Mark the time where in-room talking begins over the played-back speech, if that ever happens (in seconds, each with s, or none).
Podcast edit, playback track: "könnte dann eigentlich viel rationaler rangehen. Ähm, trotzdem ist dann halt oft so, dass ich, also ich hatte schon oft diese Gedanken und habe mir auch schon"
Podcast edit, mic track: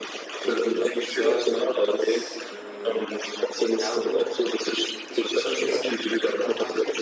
0.4 s